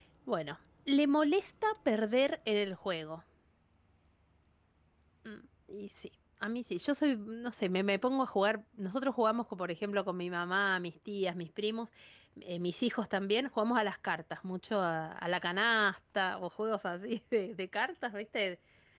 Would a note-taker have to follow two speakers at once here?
No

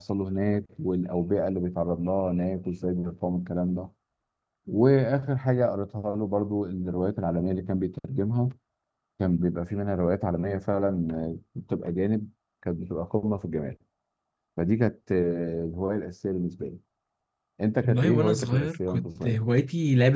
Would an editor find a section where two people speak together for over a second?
Yes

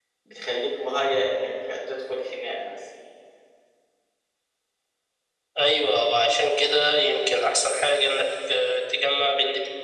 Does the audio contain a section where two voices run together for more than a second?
No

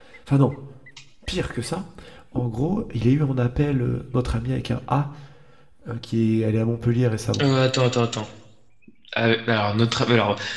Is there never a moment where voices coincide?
Yes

